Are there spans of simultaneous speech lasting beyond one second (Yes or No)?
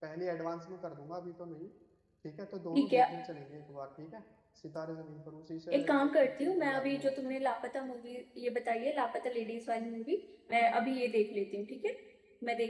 Yes